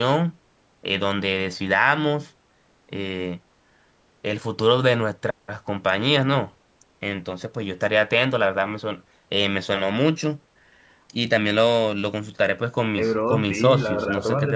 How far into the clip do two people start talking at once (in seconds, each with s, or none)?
13.0 s